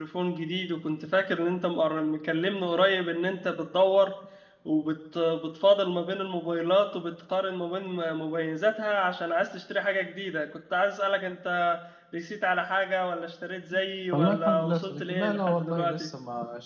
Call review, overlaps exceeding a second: present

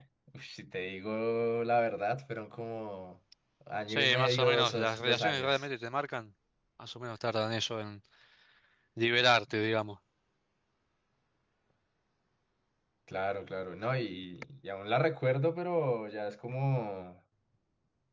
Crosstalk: present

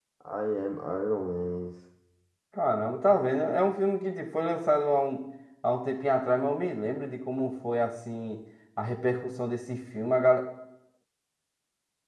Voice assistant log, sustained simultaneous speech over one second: none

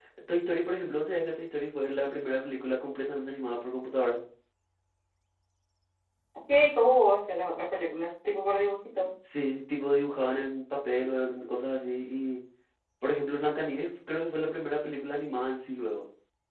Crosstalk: none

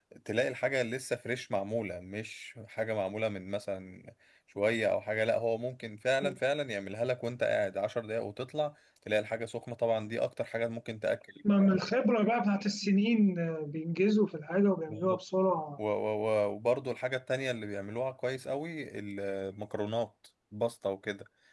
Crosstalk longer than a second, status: none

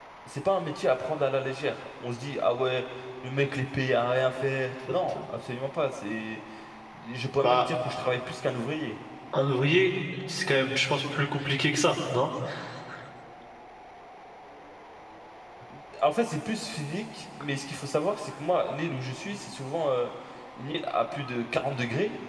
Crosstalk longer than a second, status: none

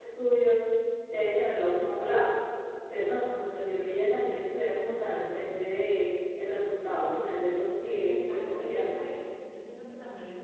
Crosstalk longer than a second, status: present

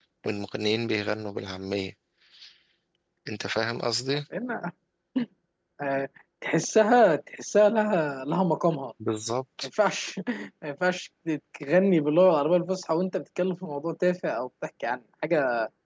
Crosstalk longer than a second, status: none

